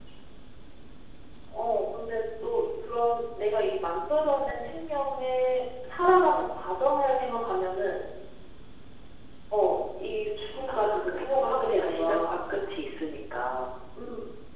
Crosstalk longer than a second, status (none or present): present